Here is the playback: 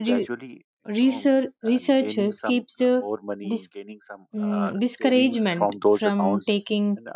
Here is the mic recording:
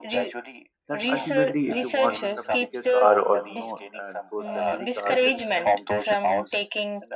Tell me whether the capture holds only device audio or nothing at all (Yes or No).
No